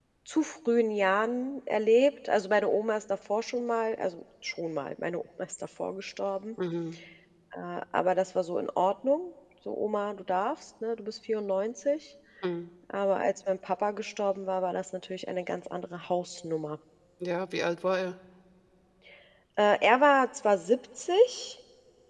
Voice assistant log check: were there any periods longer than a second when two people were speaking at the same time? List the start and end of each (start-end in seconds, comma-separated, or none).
none